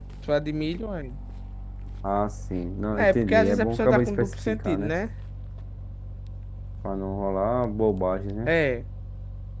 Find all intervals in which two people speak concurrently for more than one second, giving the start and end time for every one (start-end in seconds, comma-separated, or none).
3.0-4.9